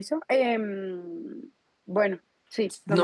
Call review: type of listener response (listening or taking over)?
taking over